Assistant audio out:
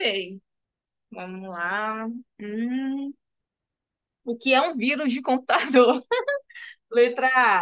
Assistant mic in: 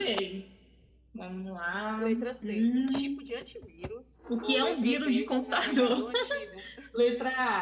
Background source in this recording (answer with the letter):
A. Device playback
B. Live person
B